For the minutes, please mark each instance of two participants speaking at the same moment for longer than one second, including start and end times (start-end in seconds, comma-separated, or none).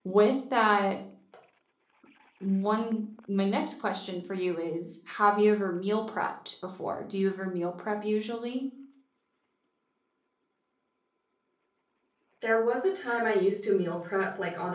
none